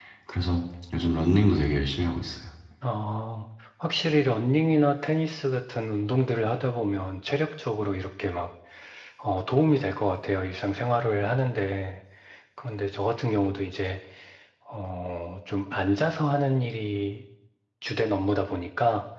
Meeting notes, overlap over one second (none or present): none